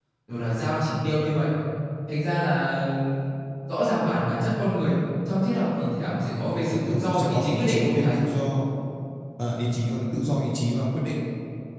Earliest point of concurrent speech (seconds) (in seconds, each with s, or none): 6.3 s